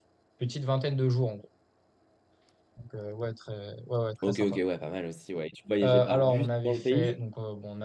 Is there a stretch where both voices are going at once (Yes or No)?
Yes